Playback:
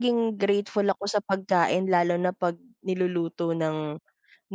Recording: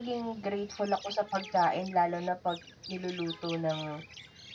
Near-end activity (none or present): none